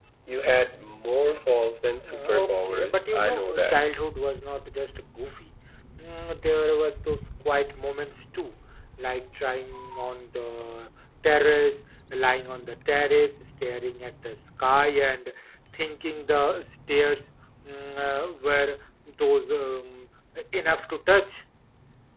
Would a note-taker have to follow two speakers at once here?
Yes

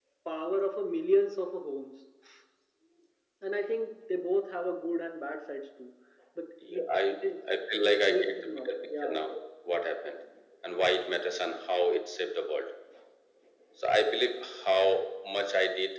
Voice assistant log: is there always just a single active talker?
No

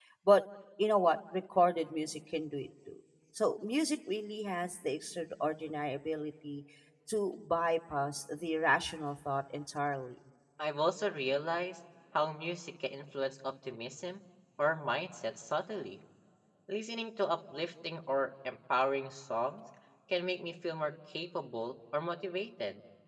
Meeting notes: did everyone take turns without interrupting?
Yes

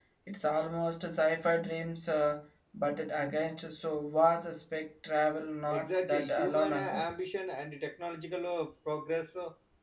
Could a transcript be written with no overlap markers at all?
No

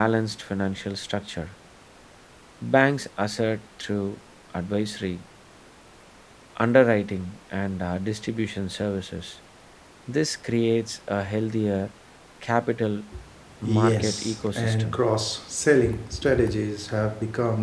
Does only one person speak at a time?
No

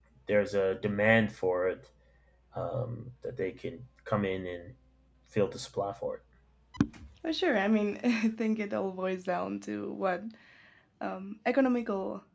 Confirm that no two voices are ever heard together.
Yes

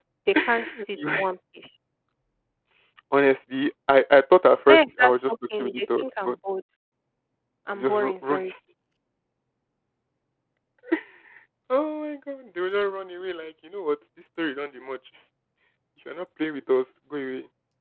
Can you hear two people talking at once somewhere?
Yes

